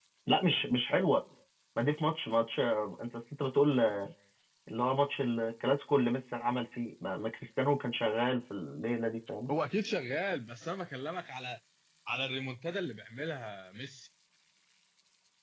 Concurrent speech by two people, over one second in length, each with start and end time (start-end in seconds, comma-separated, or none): none